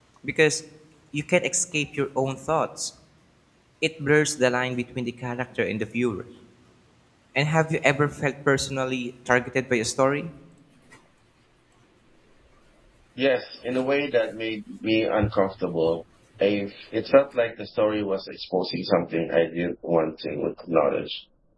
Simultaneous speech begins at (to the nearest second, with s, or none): none